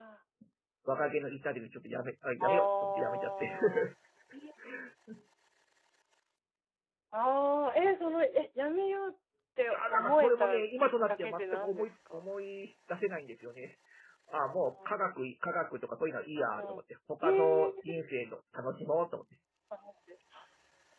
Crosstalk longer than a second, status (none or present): present